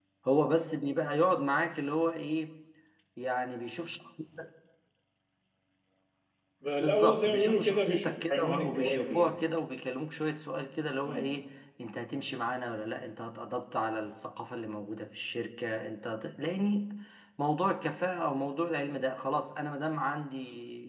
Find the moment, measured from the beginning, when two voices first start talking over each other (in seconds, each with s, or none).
6.8 s